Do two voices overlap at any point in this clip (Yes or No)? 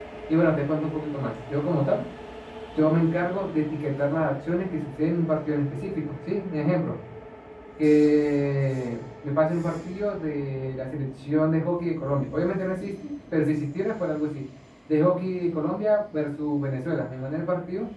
No